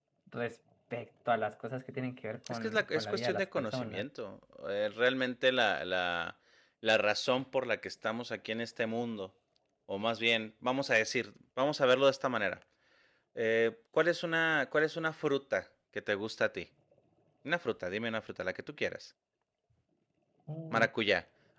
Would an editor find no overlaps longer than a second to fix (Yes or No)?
No